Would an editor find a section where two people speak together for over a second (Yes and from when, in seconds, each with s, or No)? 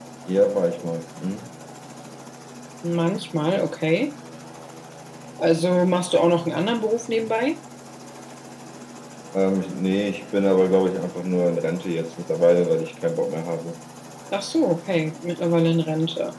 No